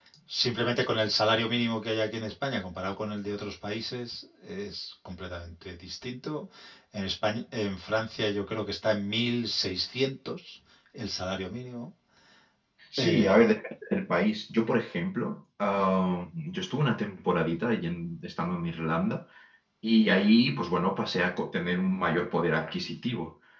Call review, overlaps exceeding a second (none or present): none